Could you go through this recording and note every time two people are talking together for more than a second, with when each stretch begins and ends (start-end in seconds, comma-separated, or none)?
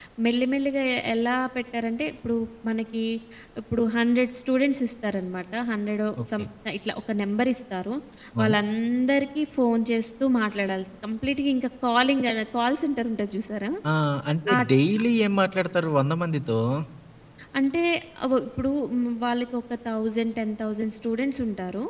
none